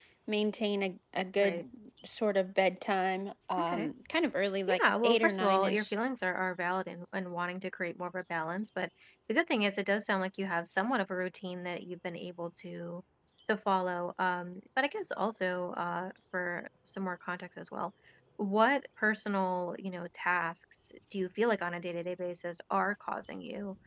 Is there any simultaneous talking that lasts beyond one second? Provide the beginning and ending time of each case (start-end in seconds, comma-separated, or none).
4.7-5.9